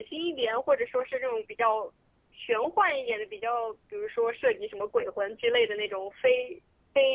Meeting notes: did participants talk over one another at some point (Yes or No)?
No